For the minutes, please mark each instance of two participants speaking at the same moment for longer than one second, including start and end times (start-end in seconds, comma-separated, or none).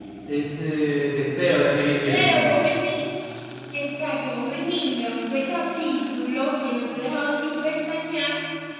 none